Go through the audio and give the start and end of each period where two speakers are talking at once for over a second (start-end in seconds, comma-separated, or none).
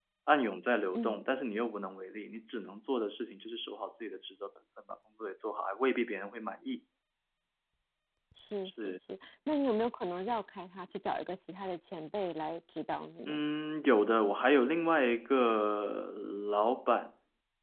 none